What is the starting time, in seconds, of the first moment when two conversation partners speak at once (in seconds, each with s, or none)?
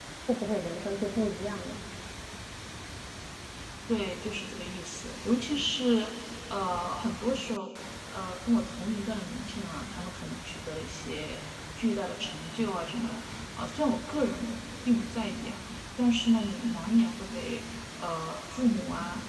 none